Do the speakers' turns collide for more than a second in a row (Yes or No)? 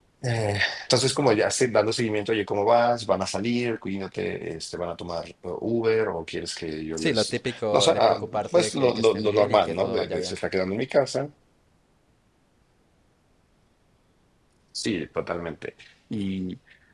Yes